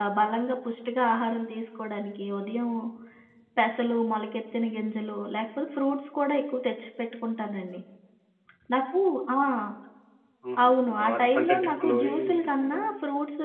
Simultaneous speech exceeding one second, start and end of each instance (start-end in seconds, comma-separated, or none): 10.7-12.9